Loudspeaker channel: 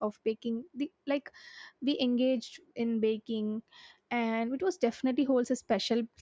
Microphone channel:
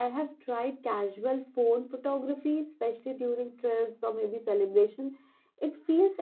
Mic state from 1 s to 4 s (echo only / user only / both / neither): user only